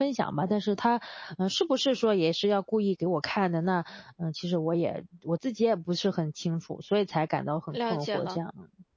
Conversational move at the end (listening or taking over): taking over